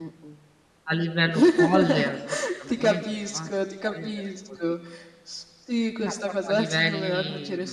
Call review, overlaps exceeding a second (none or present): present